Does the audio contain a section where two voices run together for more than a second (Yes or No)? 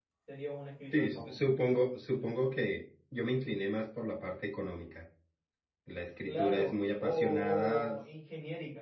Yes